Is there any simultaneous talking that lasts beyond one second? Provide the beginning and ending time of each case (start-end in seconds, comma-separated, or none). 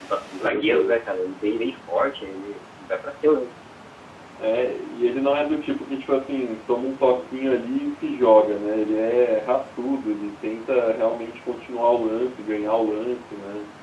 none